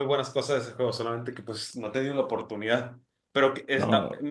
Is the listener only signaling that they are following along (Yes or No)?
Yes